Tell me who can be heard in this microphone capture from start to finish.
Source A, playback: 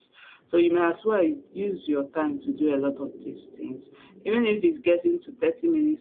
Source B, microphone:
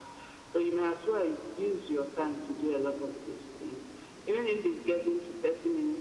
echo only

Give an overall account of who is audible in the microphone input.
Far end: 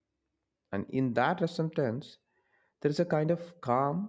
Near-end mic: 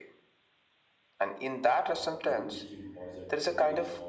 both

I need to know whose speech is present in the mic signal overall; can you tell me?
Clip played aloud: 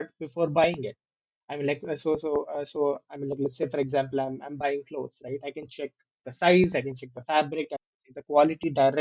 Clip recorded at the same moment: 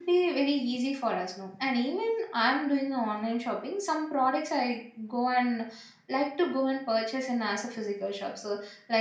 user only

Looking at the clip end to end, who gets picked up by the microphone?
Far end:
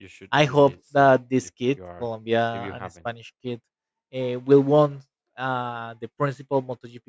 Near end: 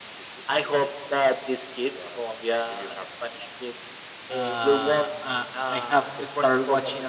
both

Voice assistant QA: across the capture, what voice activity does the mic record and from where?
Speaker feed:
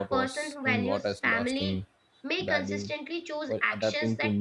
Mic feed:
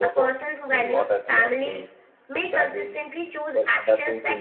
echo only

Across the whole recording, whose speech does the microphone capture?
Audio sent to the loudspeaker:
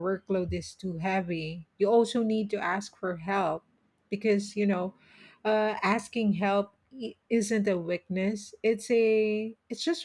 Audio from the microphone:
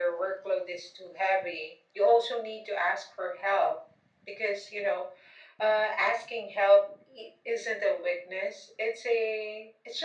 echo only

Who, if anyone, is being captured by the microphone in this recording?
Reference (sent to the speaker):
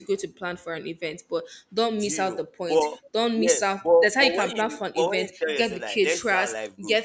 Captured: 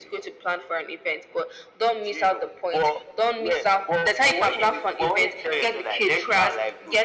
echo only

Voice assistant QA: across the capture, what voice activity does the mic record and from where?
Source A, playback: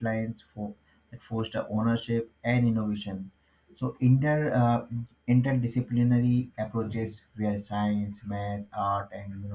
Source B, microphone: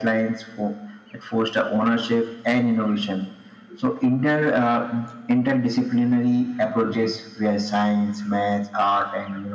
echo only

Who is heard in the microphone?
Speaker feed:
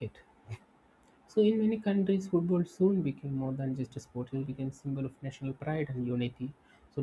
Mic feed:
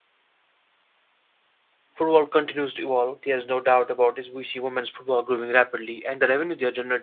user only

